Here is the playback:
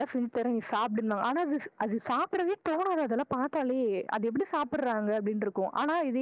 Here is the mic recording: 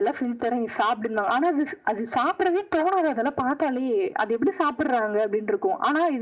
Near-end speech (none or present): none